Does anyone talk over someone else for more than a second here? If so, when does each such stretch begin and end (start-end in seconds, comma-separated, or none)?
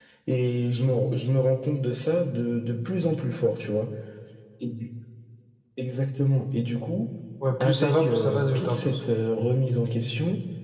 7.6-9.0